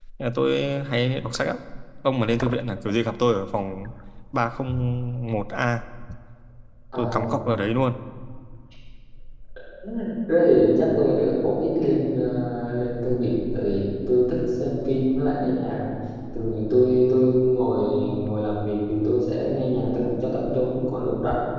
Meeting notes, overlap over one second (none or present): none